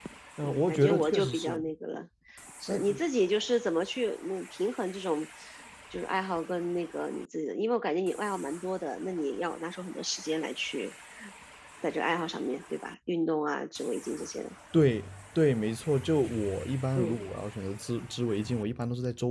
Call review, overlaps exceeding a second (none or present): present